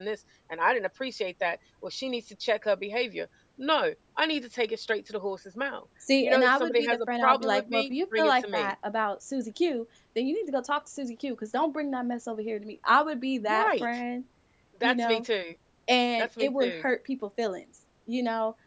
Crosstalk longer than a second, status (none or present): present